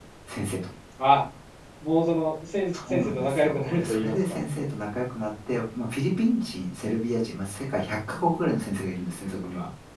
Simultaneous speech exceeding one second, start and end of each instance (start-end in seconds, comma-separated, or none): 2.8-4.1